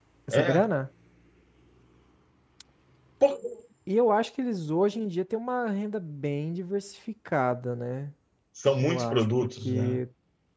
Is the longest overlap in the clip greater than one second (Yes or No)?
Yes